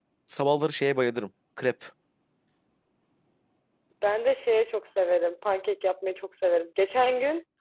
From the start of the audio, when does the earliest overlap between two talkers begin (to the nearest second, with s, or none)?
none